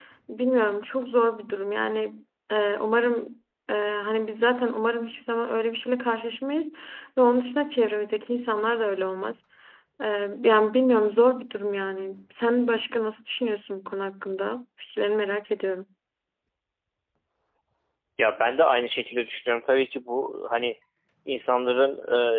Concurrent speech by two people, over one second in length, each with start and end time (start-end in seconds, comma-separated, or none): none